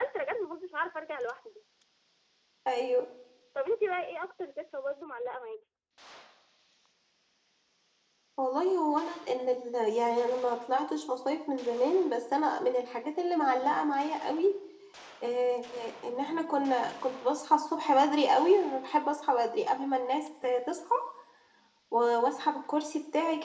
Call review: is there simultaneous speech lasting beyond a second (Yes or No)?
No